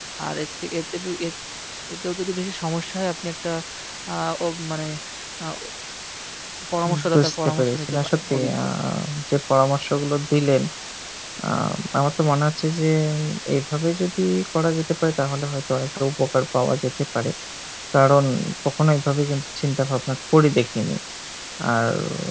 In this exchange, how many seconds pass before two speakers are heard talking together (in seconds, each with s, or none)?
7.1 s